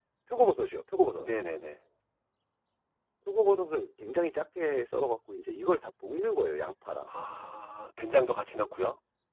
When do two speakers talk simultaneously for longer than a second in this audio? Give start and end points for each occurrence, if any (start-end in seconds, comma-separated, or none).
none